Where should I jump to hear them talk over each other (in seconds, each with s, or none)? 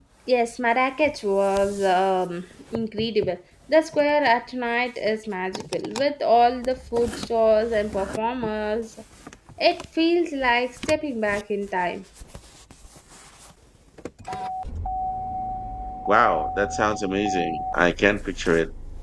none